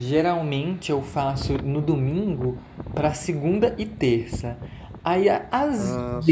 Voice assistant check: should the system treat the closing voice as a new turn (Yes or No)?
No